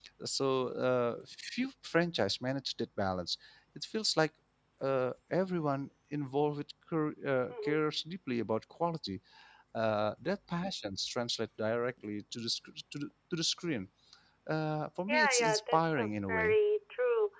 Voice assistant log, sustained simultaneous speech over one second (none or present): present